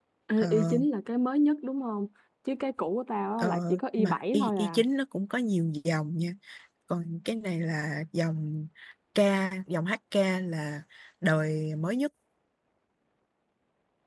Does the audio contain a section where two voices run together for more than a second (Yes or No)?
Yes